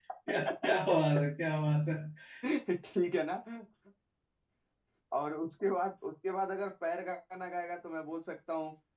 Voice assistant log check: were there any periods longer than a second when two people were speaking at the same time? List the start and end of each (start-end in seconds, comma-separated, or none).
none